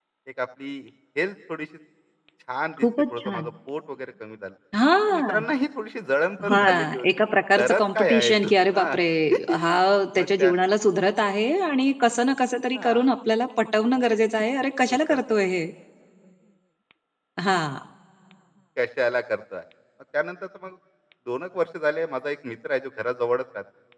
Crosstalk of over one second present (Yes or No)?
Yes